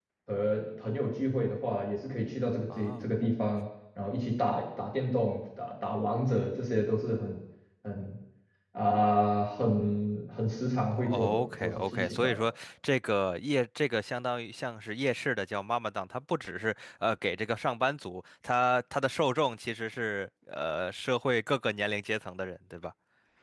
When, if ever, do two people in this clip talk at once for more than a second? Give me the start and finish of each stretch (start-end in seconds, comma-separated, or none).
10.9-12.3